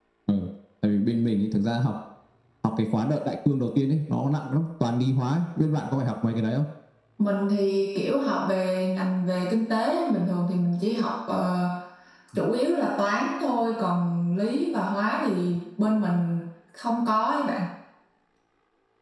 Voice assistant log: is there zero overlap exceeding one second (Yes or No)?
Yes